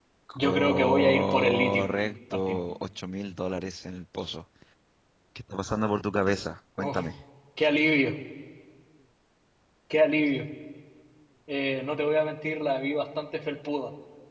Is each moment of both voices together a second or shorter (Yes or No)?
No